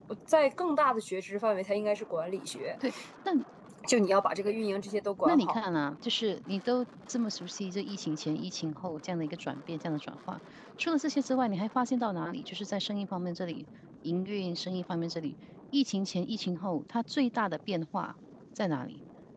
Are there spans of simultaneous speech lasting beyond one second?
No

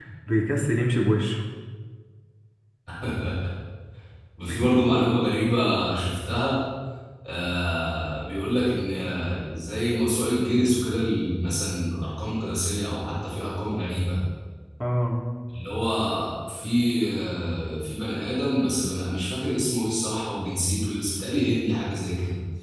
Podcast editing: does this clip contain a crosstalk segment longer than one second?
No

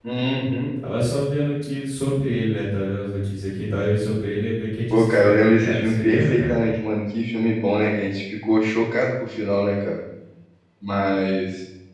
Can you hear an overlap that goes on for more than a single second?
Yes, from 4.9 s

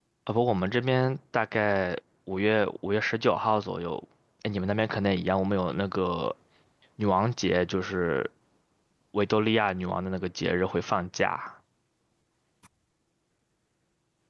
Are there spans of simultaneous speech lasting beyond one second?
No

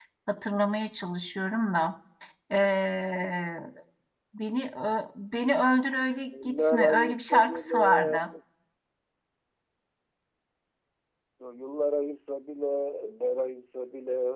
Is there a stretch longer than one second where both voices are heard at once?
Yes, from 6.3 s

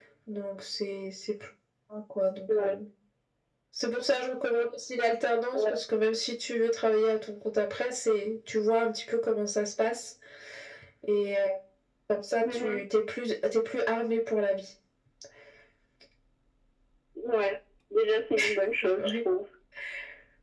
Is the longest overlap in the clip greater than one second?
No

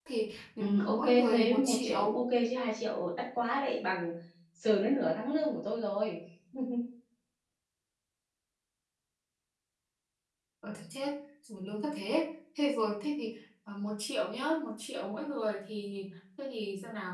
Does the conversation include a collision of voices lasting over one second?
Yes, from 0.6 s

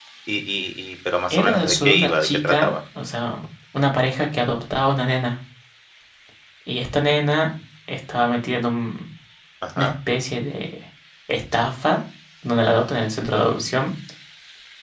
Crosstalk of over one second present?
Yes, from 1.3 s

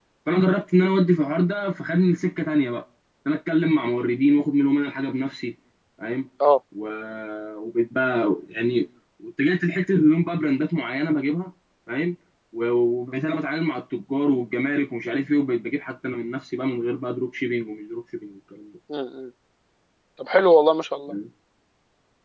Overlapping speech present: No

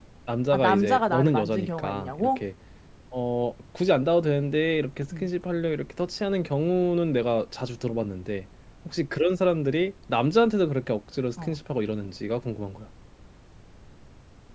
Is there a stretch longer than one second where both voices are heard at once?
Yes, from 0.5 s

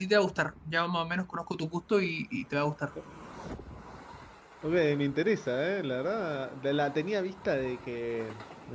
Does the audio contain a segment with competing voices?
No

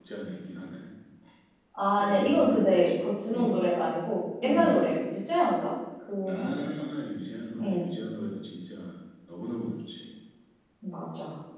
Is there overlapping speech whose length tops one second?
Yes, from 2.0 s

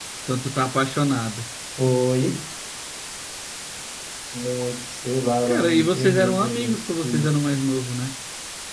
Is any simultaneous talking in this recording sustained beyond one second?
Yes, from 5.5 s

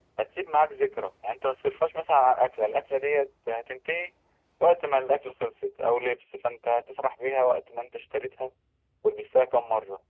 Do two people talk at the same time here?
No

